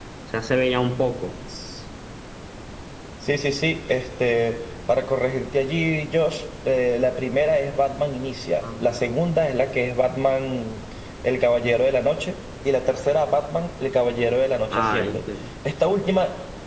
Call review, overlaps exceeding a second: none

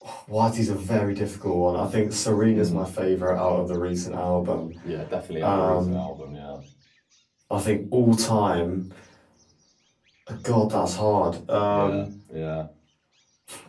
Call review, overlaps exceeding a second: none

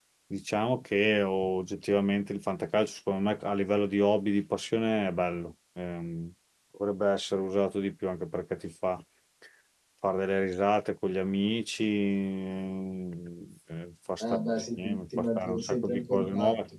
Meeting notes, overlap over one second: present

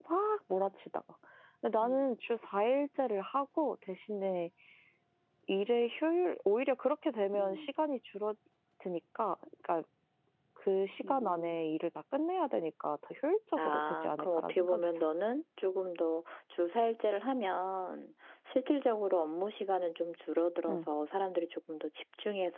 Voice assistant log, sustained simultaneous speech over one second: present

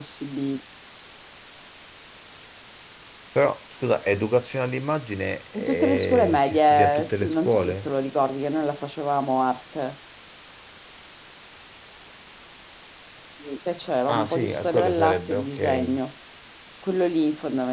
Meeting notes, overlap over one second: present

